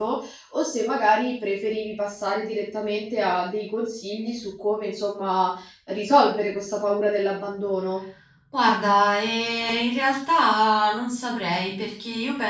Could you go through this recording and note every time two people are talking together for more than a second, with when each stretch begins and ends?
none

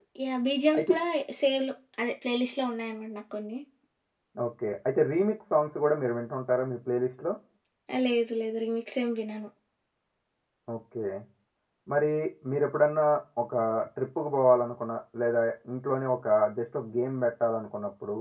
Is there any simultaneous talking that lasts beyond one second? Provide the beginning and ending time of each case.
none

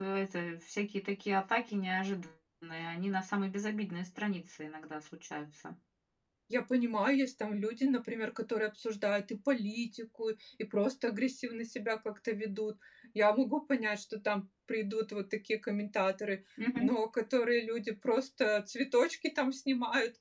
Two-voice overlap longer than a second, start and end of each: none

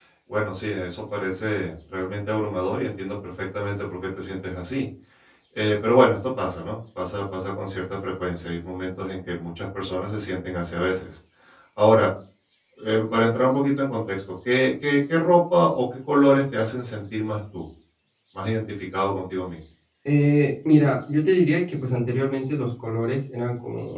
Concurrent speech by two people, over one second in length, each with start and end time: none

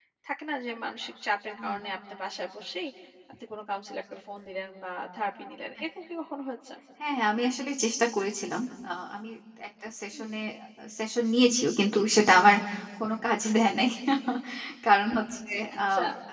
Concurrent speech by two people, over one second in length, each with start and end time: none

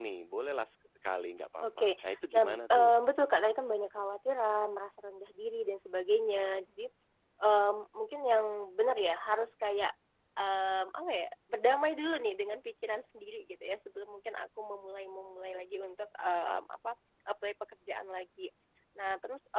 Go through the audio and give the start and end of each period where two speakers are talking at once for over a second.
1.6-3.0

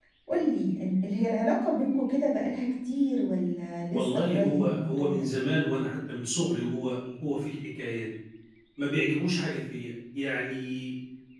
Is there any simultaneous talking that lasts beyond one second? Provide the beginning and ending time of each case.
3.9-5.3

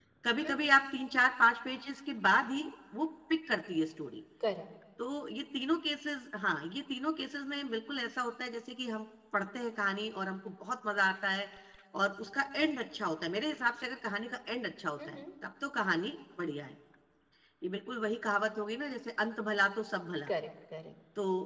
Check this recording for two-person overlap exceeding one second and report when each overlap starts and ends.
none

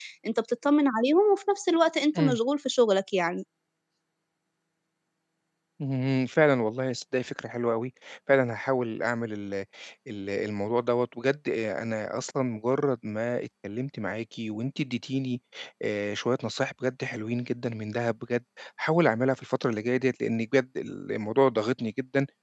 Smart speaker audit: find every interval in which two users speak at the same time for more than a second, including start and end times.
none

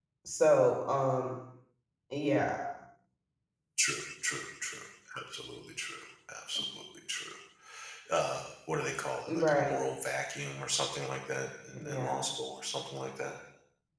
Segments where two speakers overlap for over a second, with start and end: none

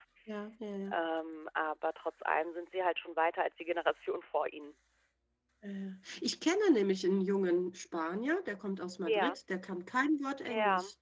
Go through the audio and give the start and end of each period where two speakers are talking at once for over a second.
none

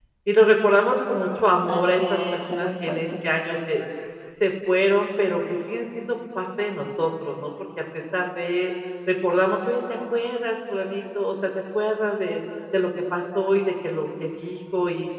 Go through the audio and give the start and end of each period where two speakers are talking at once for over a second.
1.7-3.0

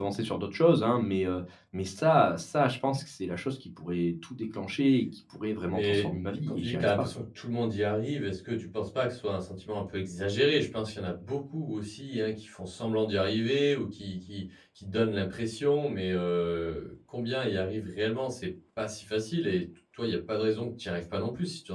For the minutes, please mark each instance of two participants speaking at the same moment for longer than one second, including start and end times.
5.7-7.1

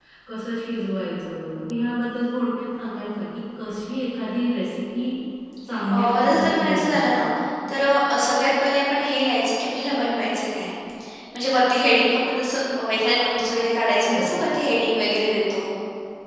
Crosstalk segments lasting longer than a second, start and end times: 5.9-7.1

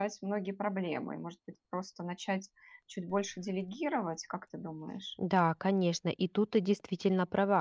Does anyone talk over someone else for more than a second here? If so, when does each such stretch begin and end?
none

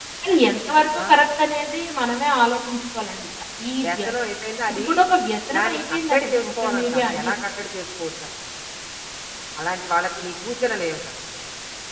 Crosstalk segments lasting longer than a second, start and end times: 5.6-7.3

